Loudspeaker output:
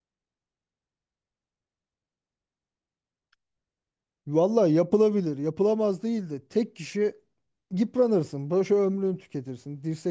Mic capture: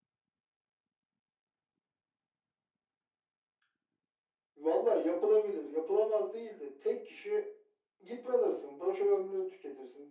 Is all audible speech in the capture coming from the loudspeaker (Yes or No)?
Yes